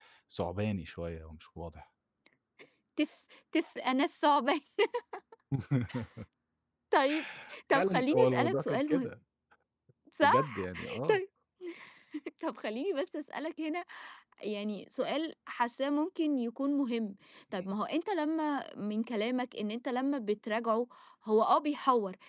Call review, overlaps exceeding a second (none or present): present